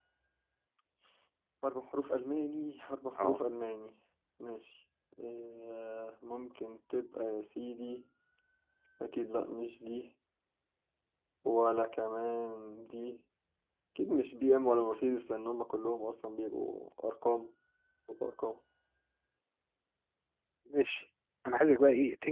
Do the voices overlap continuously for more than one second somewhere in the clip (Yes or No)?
No